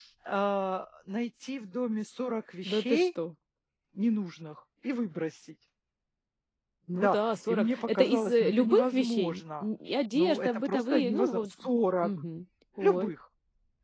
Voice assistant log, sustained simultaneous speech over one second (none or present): present